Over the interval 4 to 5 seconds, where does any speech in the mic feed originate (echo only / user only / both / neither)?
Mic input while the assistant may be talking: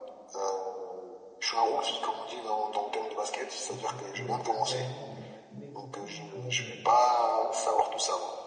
both